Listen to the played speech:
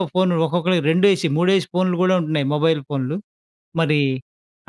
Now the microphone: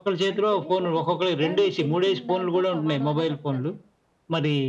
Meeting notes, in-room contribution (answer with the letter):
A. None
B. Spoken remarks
B